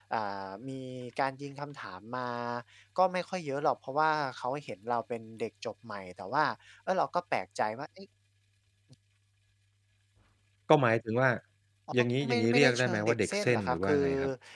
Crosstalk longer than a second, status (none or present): present